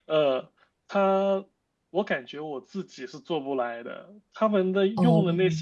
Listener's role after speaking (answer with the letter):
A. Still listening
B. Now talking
A